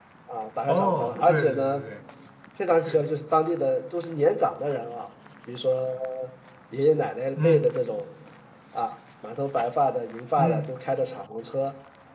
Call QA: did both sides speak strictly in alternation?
No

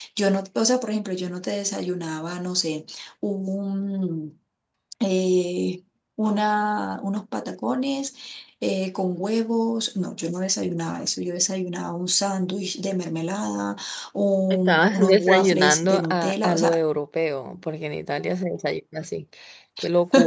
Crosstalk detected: Yes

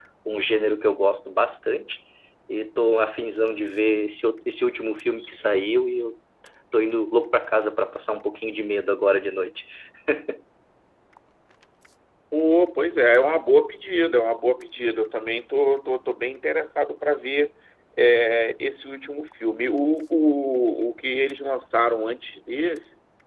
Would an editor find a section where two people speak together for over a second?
No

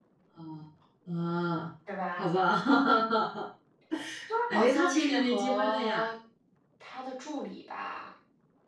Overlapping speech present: Yes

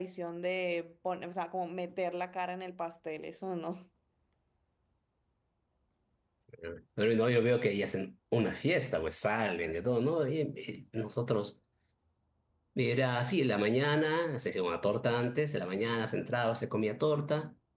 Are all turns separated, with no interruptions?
Yes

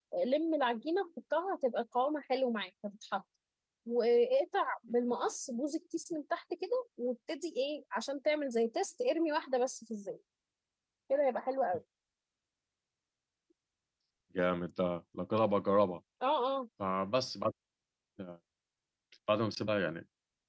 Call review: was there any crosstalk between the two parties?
No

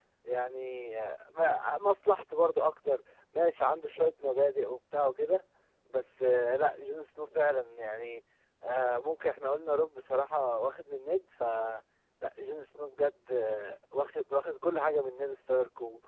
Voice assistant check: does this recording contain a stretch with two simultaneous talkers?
No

